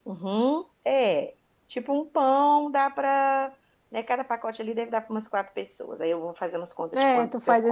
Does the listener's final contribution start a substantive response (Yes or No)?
Yes